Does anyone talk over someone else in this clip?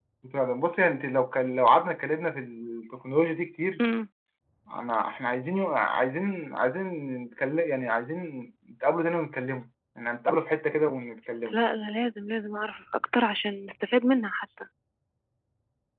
No

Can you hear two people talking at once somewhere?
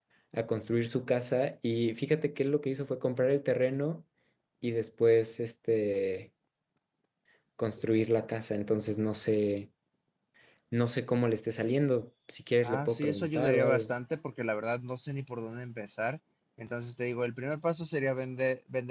Yes, from 12.6 s

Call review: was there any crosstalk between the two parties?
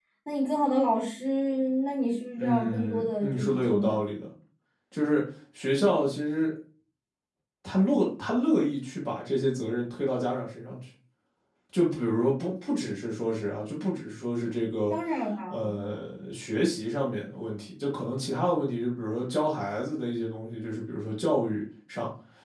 Yes, from 2.4 s

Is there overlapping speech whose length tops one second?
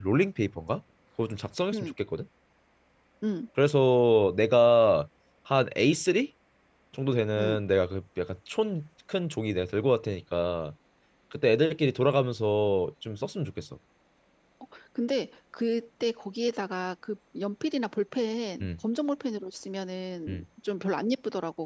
No

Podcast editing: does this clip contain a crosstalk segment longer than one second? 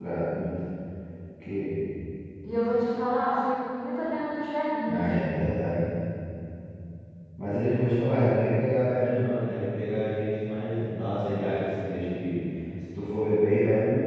No

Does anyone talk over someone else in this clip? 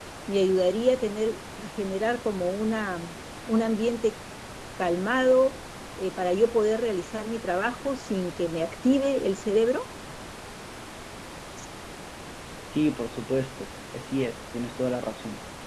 No

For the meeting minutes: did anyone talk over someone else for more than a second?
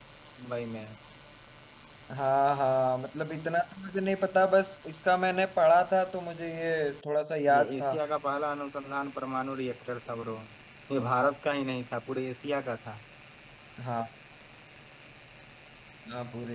No

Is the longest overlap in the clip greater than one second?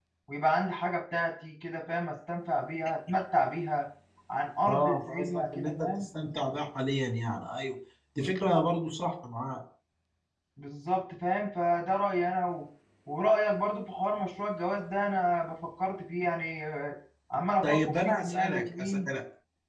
Yes, from 4.7 s

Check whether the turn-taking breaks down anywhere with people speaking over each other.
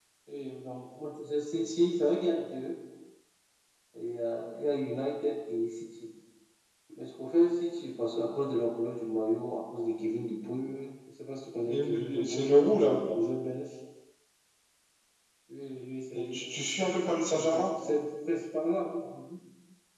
Yes, from 11.7 s

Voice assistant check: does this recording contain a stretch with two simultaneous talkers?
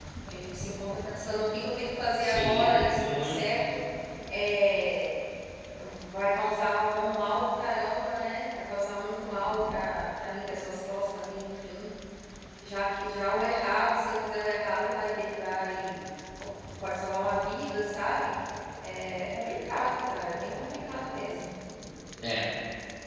Yes, from 2.2 s

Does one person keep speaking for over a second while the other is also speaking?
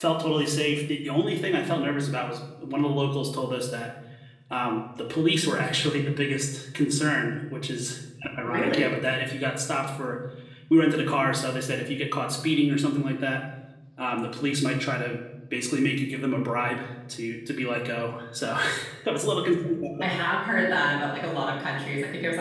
No

